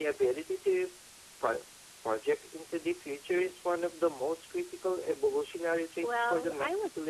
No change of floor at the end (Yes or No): No